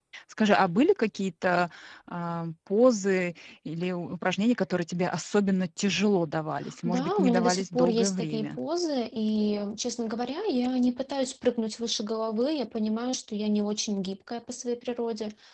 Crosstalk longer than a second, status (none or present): present